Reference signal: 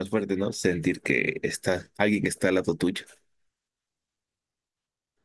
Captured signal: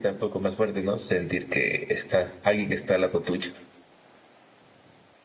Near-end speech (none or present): none